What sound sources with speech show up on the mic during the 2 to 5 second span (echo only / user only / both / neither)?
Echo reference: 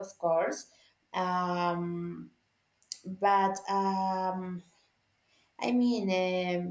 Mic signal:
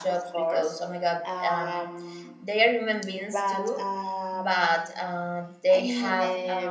both